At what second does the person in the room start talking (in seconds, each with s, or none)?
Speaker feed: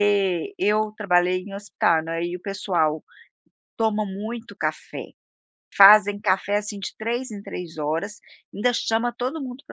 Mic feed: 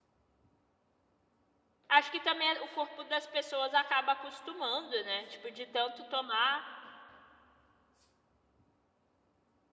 1.9 s